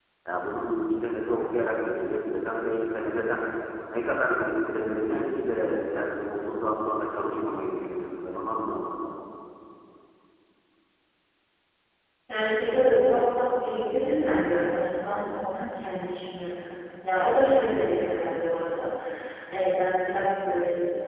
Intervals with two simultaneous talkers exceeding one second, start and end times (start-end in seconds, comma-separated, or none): none